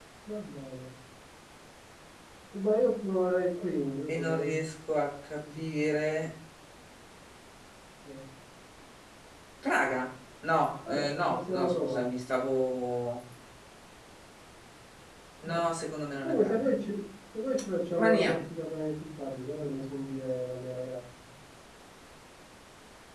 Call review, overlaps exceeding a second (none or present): present